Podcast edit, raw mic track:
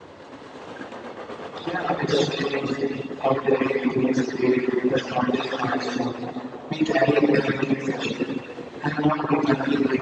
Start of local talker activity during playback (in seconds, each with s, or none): none